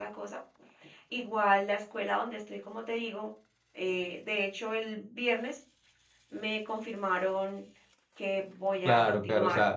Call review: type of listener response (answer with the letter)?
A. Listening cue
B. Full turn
B